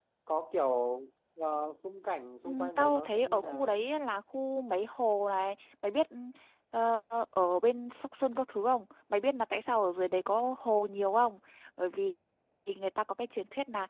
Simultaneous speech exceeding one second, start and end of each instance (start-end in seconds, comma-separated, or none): 2.5-3.8